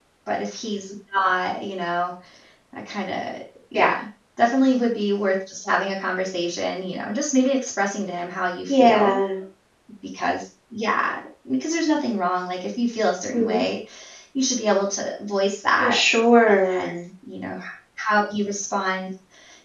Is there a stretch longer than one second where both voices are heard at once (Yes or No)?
No